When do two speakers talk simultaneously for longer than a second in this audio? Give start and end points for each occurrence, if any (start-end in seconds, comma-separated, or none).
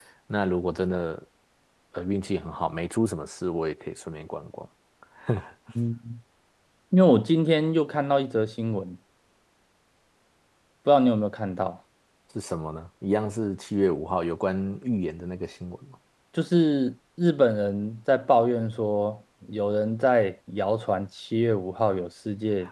none